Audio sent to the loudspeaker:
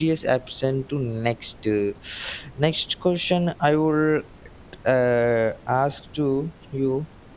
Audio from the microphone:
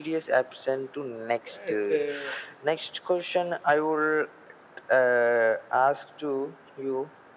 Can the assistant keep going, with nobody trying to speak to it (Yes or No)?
No